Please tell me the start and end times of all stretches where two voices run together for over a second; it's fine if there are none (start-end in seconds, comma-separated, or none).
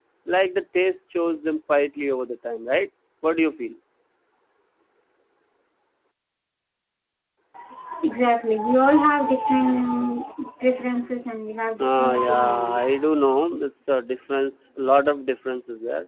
11.8-13.1